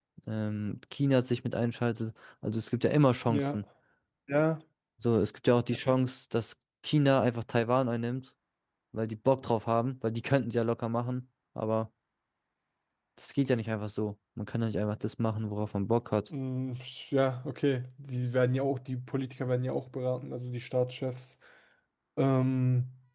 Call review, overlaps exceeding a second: none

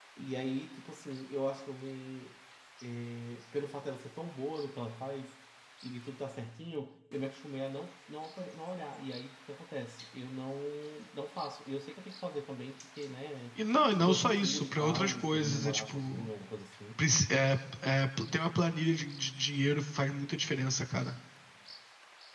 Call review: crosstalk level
present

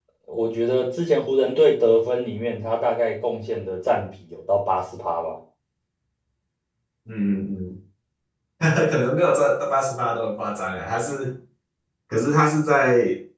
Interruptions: none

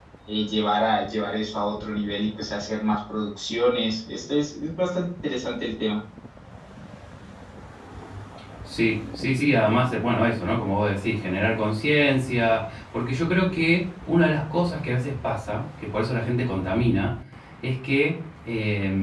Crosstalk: none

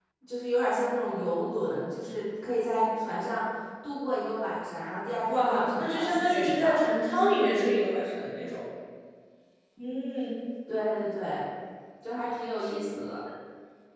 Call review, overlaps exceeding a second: present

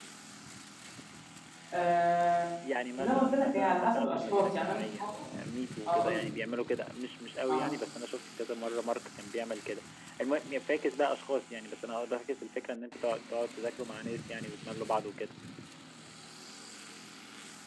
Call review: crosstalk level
present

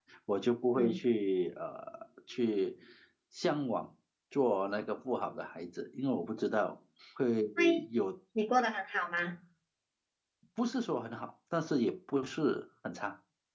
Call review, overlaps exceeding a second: none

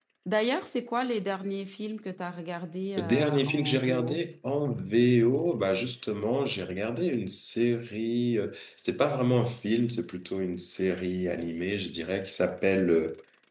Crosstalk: present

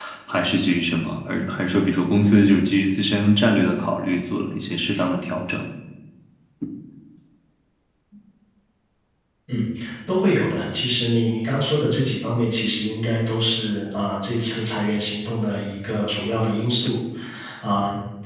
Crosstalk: none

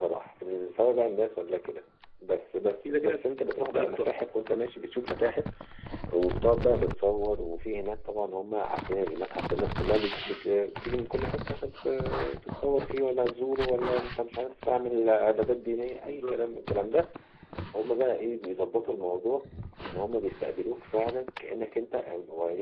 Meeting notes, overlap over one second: present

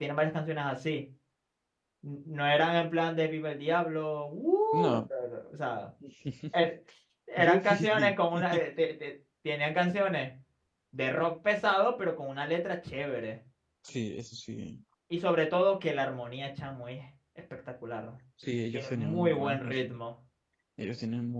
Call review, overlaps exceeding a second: present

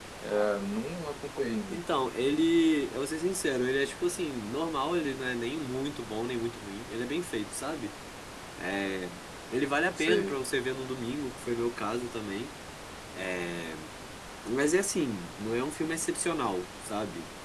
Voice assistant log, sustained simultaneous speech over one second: none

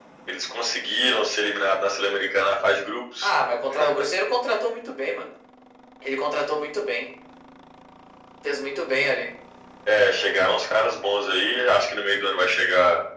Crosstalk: none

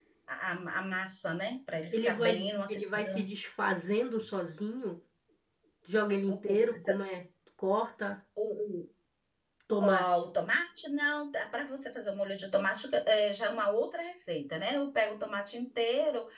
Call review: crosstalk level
present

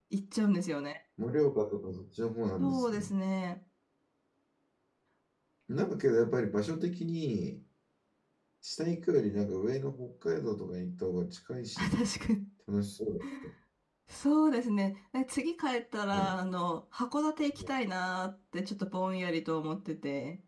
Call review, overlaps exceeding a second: none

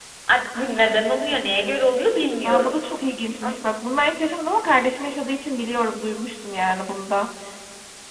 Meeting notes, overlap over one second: none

